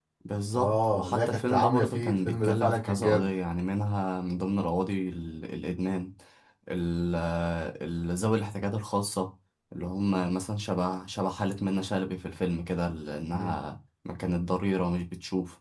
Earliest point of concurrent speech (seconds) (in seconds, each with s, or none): 0.6 s